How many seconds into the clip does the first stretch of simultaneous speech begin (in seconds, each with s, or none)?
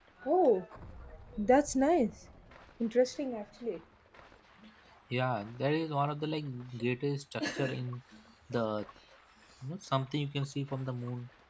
none